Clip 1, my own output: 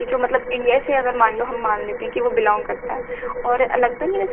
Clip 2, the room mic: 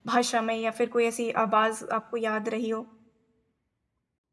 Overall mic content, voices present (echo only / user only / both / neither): user only